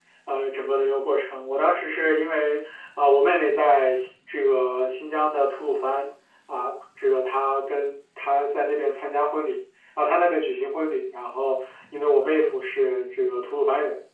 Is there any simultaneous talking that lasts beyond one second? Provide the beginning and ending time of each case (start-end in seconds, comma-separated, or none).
none